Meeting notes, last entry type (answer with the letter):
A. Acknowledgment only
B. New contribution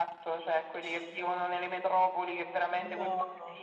A